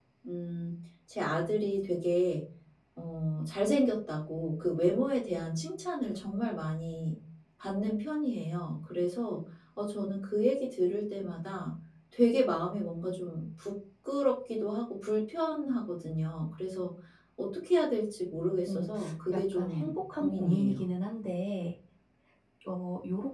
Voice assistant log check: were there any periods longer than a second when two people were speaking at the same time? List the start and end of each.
19.6-20.8

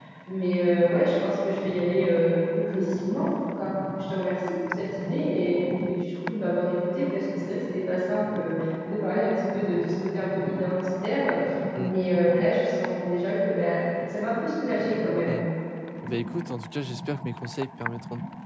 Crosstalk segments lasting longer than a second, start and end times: none

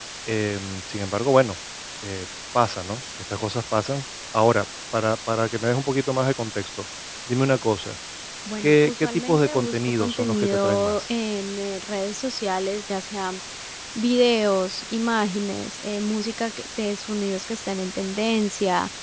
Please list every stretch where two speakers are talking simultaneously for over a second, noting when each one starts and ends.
8.6-11.0

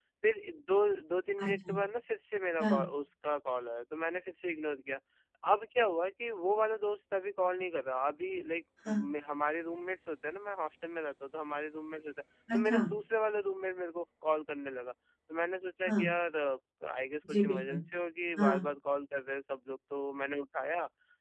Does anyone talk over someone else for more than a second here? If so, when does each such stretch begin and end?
none

